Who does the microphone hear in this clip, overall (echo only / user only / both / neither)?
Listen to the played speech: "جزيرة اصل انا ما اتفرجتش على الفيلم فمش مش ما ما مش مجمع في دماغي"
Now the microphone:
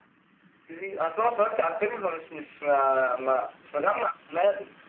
echo only